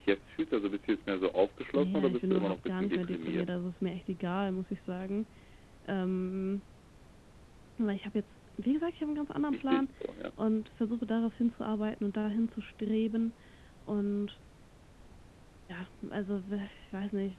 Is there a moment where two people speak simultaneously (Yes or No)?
Yes